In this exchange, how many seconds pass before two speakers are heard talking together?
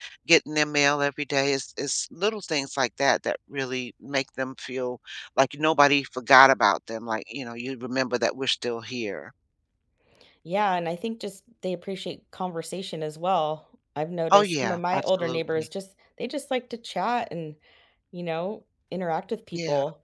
14.3 s

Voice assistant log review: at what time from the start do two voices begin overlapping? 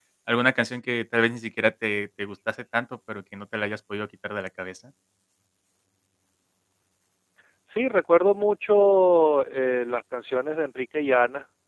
none

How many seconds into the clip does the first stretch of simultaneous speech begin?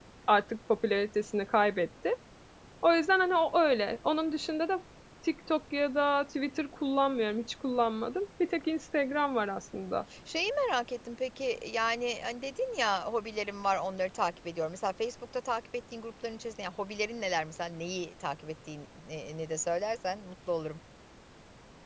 none

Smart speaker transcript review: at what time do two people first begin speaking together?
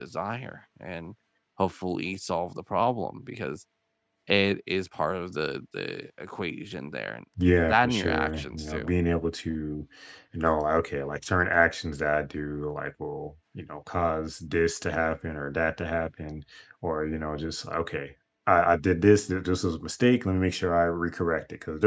7.7 s

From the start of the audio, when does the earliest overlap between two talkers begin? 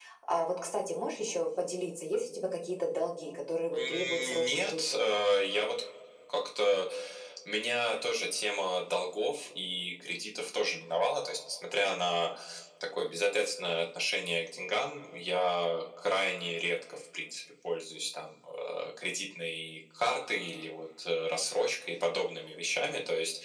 3.7 s

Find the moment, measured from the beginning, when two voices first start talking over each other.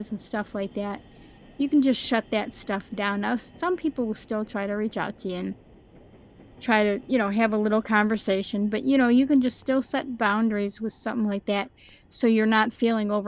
none

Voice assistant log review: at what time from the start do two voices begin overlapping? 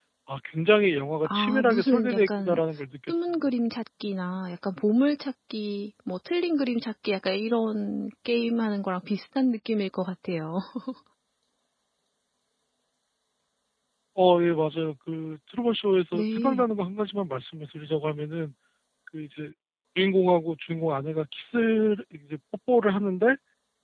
1.2 s

